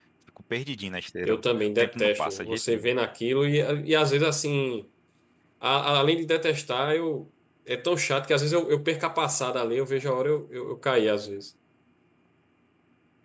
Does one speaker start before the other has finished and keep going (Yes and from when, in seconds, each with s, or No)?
Yes, from 1.2 s